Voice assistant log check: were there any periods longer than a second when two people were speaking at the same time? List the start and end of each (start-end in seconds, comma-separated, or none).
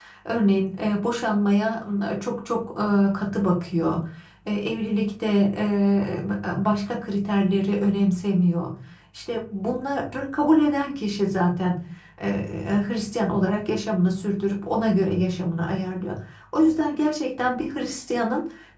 none